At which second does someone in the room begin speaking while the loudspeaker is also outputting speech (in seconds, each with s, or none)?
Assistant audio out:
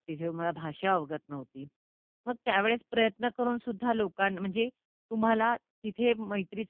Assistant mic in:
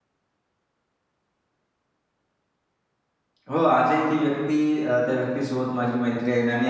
3.5 s